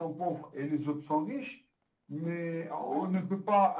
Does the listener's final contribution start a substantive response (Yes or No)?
No